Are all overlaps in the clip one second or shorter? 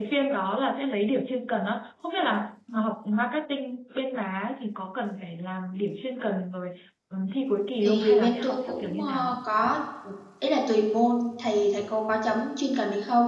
No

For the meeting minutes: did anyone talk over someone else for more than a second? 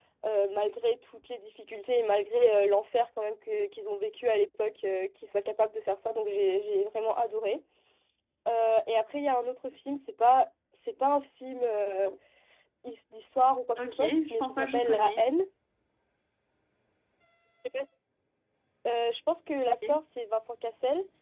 Yes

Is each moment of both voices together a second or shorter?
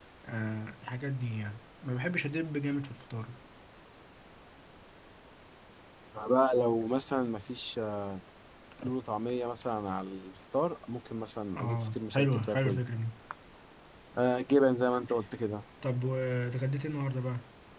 No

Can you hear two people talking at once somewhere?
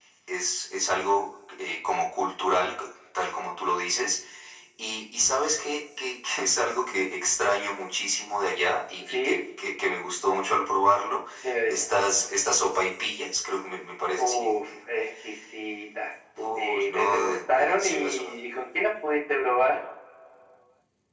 Yes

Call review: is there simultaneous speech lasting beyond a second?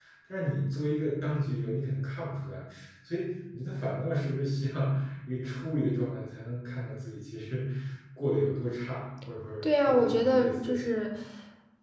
Yes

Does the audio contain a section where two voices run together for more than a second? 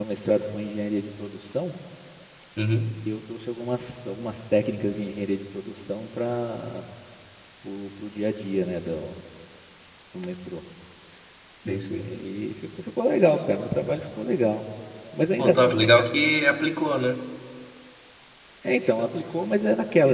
No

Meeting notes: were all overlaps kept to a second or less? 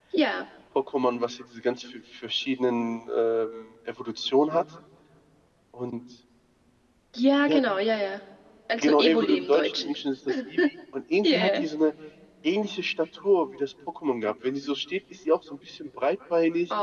No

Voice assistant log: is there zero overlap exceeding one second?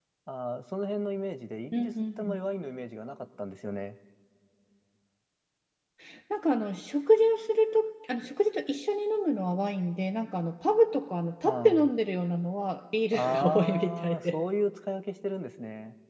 No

